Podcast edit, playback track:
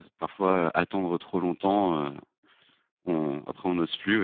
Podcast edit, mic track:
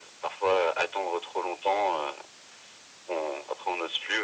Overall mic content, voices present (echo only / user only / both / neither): echo only